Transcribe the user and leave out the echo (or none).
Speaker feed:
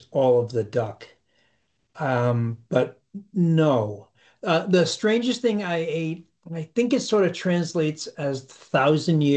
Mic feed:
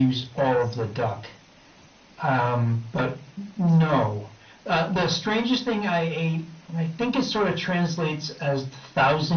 none